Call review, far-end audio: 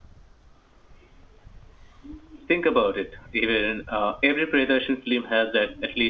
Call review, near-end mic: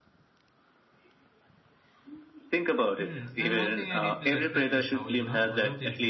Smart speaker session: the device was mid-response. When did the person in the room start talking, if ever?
3.0 s

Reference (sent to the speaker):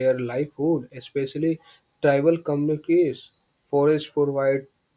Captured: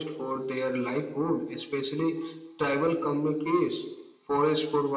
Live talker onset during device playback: none

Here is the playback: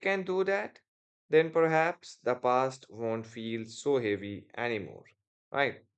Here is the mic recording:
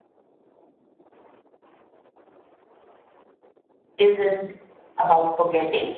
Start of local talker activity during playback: 4.0 s

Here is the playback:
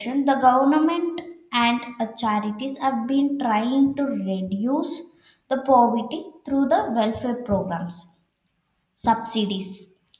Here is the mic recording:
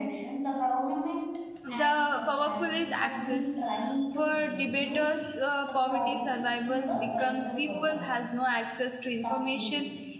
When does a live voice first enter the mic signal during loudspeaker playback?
1.6 s

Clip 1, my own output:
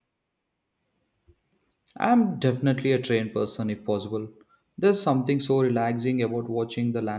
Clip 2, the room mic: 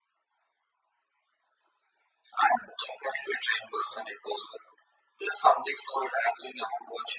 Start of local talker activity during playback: none

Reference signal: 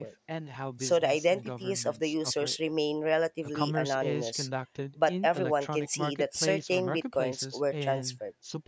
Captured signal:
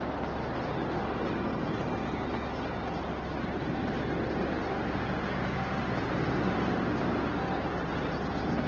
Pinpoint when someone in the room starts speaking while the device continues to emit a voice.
none

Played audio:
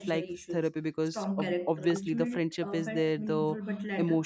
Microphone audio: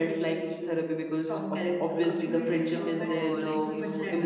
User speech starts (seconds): 3.0 s

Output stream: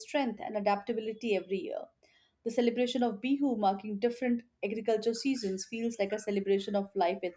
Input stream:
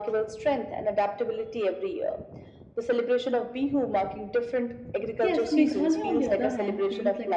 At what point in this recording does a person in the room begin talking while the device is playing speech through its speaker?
5.2 s

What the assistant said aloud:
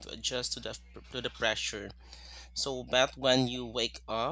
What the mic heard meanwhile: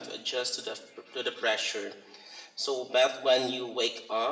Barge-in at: none

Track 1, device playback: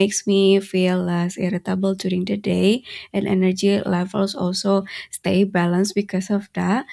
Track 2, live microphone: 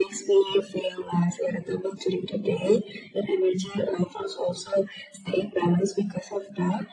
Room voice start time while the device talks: none

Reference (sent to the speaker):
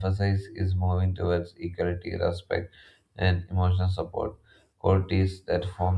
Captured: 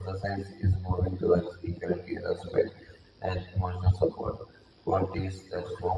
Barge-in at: none

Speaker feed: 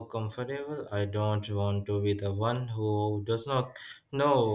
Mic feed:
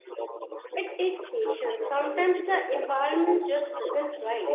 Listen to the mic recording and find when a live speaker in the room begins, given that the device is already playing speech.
0.8 s

